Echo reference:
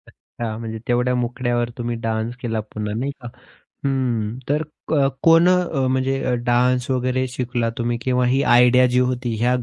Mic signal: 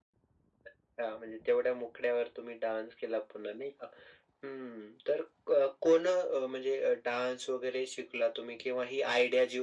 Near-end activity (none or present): none